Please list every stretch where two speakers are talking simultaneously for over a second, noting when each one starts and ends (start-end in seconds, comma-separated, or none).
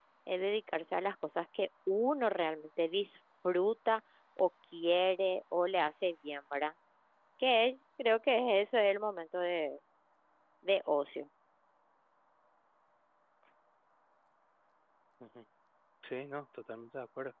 none